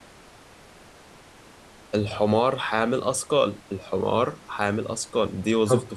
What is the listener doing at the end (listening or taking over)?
taking over